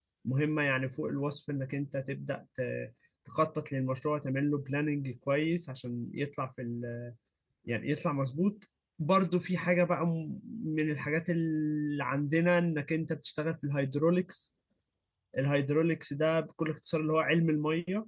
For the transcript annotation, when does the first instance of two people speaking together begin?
none

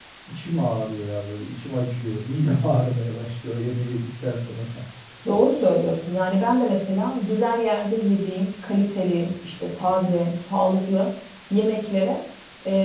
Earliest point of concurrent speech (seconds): none

